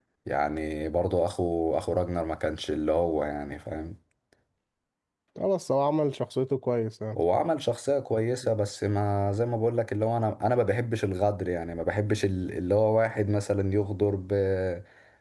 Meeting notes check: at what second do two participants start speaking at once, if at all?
none

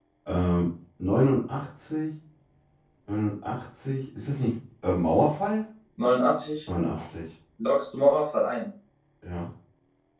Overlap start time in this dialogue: none

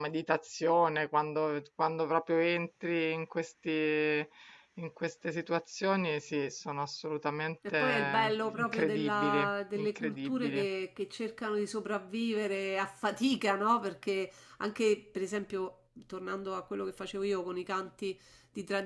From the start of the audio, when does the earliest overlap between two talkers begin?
7.7 s

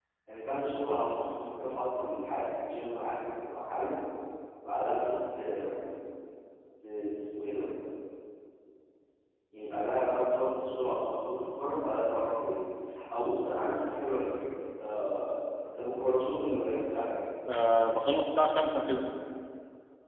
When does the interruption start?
none

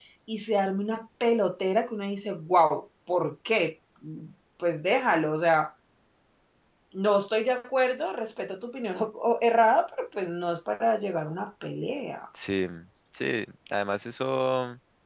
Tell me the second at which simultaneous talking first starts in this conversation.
none

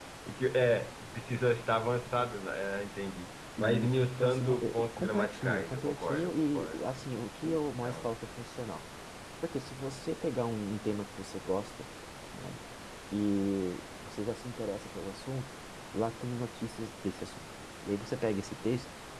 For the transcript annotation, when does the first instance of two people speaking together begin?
3.6 s

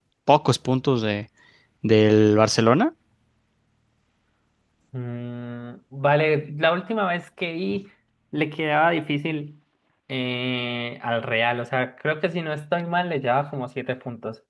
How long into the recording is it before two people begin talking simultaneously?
none

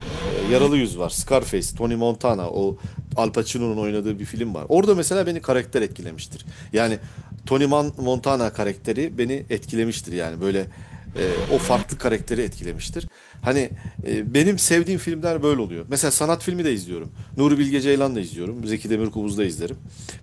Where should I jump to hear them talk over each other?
none

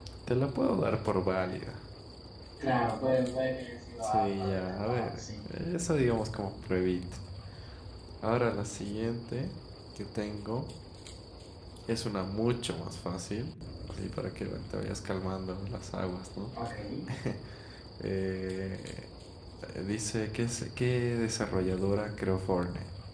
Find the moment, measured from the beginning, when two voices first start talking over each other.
4.0 s

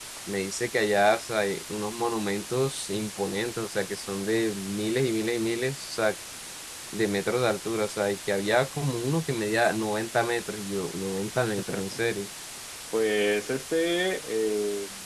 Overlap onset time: none

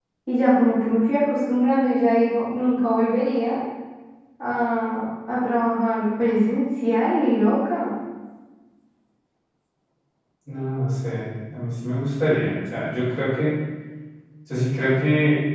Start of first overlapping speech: none

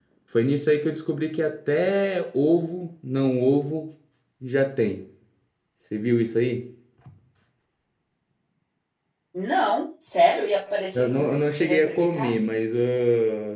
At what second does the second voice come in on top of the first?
10.9 s

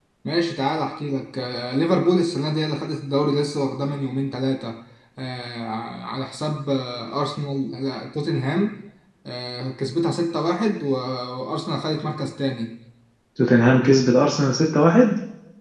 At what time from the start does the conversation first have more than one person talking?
none

